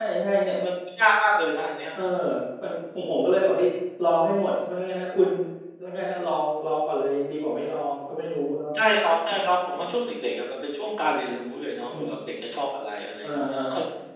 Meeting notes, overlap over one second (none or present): none